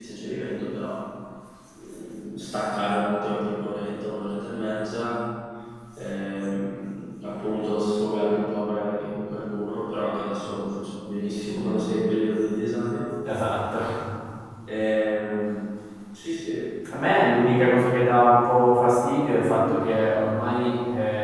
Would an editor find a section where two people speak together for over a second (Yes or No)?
No